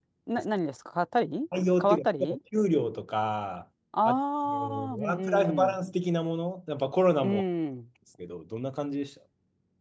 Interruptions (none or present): present